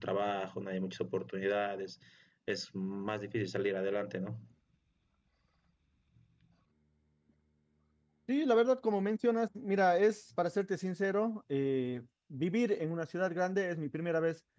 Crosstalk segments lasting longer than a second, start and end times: none

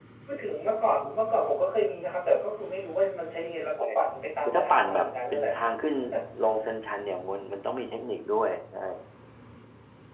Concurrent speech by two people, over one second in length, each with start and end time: 4.4-5.7

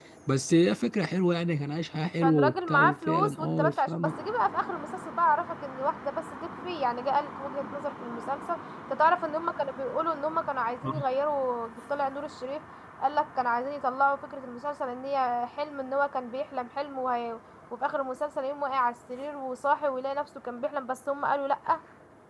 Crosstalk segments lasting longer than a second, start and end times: 2.2-4.1

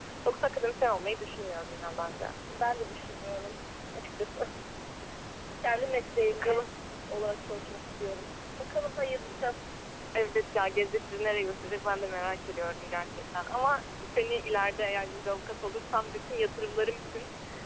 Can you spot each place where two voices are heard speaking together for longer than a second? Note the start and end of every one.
none

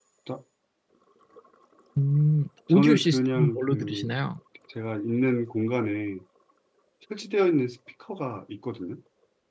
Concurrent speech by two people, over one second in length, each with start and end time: 2.7-4.1

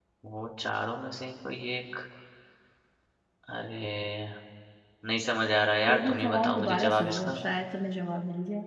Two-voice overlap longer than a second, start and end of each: 5.9-7.4

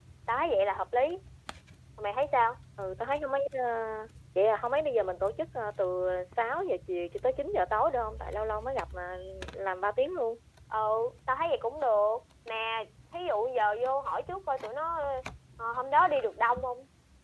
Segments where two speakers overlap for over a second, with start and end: none

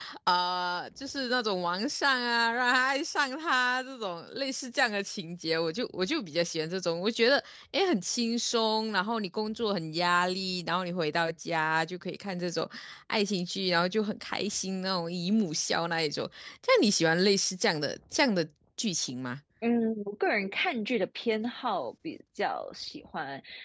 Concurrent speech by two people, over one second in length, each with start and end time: none

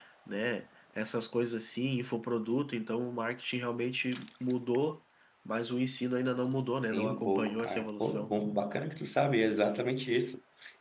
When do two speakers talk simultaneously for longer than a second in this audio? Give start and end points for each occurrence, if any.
6.9-8.3

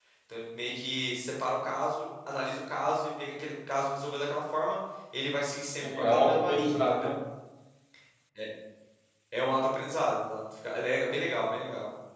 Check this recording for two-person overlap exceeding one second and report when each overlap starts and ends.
5.8-7.1

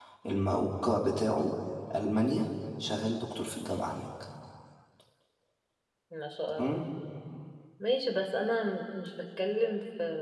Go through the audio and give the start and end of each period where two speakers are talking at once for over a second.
none

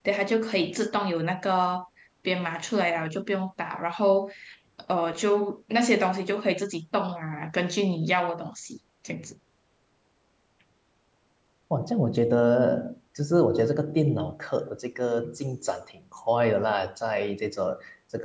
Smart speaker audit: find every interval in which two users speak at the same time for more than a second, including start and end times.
none

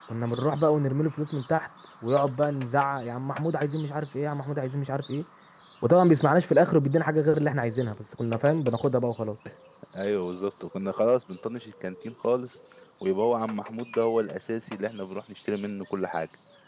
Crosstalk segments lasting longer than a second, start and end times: none

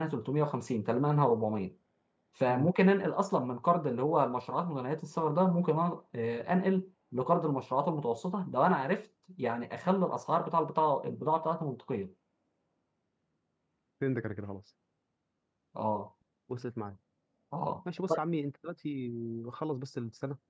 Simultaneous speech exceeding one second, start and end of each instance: none

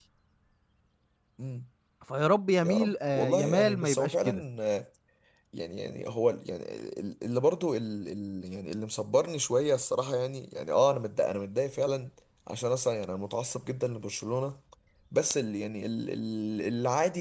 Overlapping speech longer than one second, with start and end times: 2.6-4.4

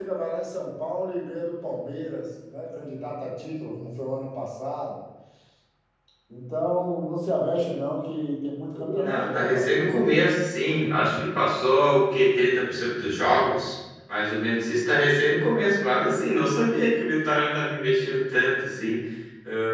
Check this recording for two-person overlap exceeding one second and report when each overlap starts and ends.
8.7-10.0

